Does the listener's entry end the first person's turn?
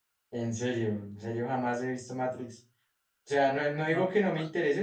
No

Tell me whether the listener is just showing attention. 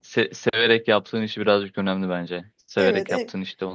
No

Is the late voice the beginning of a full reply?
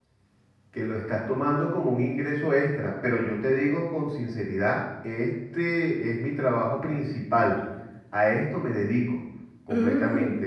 No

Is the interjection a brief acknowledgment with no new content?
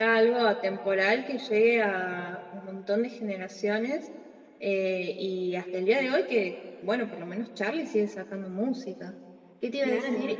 Yes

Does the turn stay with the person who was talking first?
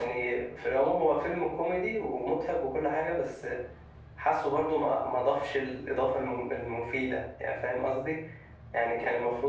Yes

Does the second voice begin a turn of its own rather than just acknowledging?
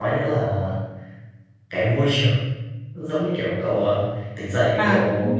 Yes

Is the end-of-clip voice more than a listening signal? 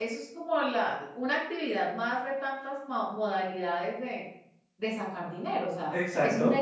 No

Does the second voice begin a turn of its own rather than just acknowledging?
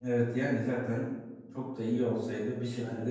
No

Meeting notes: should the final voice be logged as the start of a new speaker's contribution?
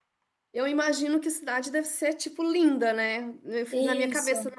No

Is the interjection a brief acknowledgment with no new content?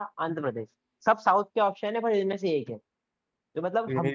Yes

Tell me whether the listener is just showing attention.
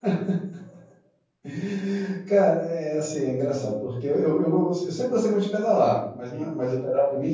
Yes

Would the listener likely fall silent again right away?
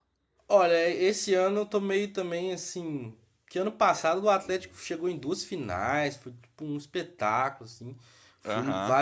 Yes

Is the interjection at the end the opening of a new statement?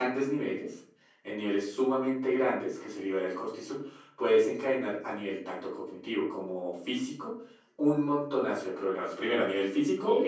No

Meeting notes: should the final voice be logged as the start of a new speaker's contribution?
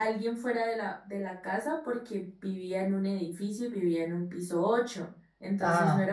No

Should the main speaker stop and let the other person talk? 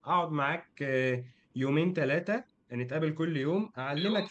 No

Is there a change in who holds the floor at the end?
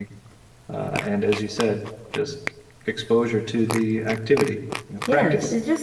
Yes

